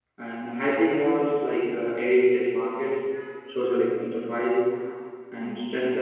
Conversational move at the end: listening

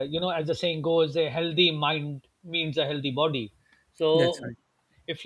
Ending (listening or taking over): listening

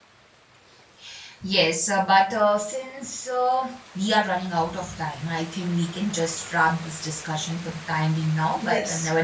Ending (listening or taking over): listening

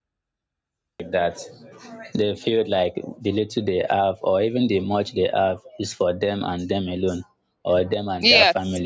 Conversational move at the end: listening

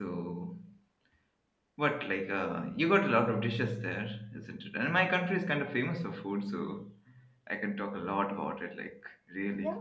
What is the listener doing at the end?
taking over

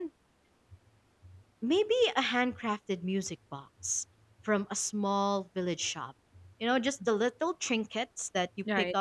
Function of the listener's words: listening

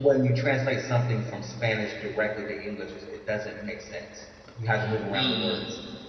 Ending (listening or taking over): taking over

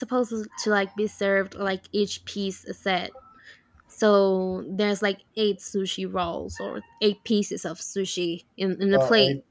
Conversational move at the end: taking over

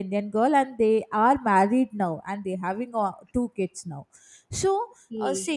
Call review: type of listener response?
listening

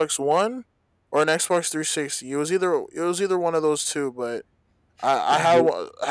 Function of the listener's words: listening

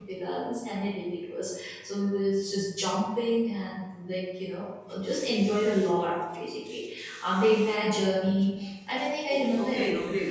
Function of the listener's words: taking over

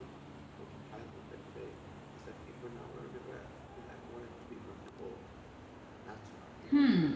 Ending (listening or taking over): taking over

